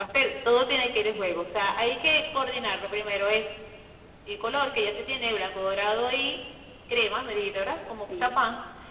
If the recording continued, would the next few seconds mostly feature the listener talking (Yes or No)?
No